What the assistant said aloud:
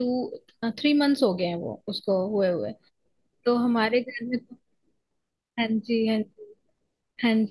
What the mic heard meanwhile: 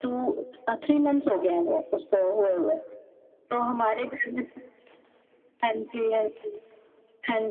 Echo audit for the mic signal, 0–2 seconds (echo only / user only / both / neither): echo only